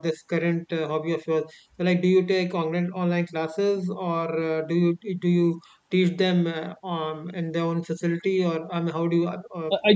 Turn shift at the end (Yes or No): Yes